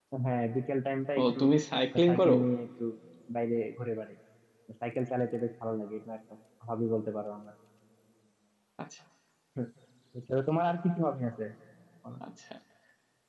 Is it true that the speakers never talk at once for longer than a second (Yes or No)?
Yes